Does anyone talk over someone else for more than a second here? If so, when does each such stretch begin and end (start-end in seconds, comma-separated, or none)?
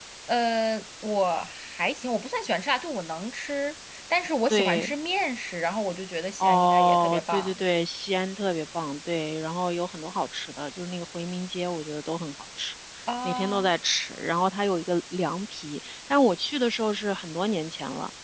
6.4-7.6